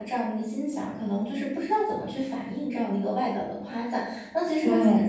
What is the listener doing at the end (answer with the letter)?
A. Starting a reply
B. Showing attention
B